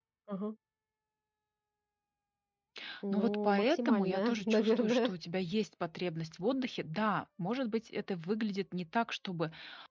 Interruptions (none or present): present